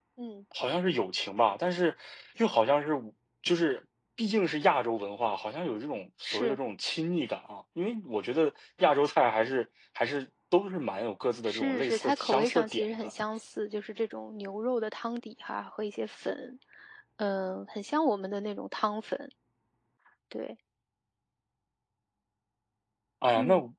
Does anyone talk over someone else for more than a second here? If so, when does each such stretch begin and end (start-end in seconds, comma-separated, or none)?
11.5-13.1